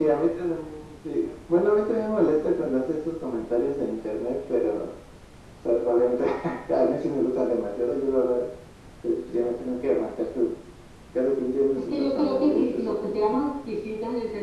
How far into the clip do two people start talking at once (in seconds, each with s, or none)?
11.8 s